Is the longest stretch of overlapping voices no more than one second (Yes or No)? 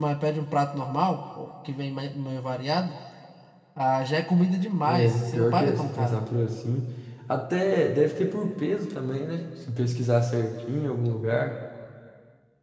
No